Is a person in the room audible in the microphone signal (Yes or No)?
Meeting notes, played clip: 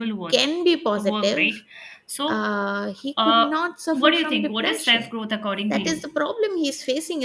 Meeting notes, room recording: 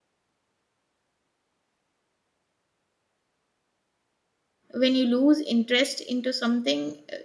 Yes